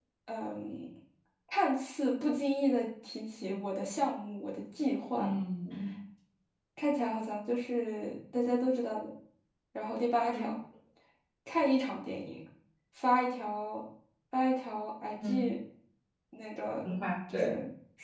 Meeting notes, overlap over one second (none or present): none